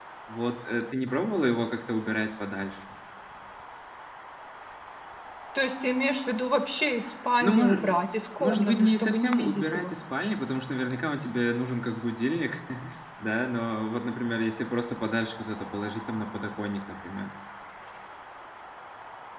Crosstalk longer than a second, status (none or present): present